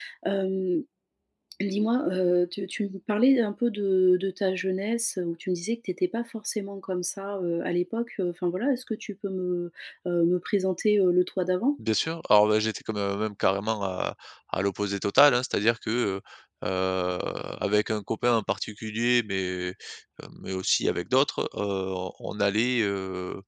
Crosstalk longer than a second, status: none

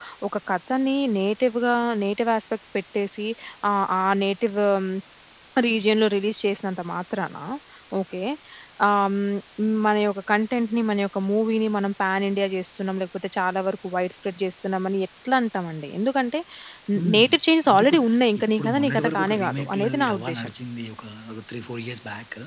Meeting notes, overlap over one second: present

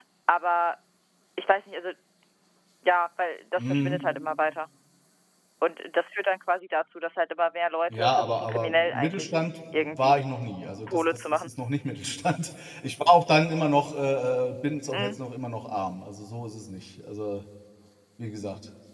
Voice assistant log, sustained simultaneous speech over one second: present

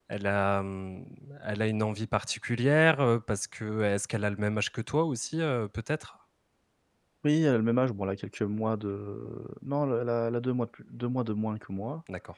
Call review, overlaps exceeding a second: none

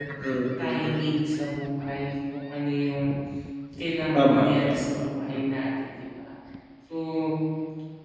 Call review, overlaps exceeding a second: present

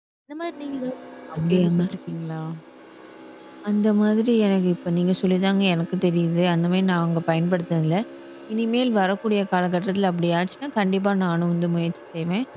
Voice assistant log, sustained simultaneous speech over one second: none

